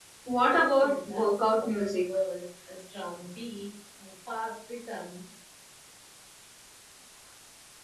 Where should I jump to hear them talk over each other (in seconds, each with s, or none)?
0.5 s